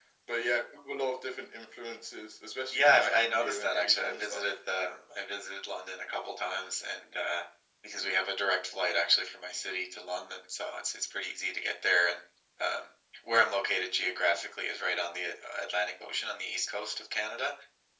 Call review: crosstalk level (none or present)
present